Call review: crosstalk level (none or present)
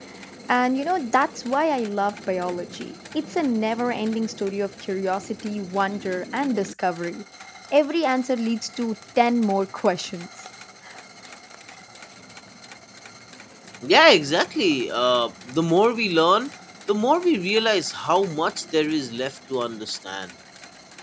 none